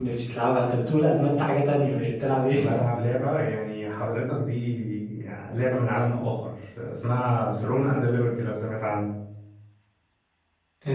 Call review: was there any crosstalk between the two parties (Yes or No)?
No